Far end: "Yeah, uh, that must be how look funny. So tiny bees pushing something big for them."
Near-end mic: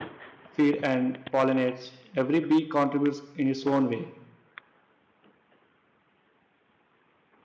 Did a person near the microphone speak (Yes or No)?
Yes